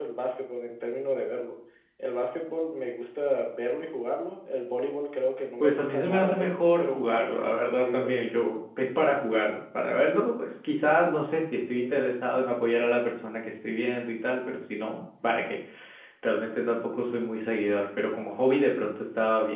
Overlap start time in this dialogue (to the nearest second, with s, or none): 6 s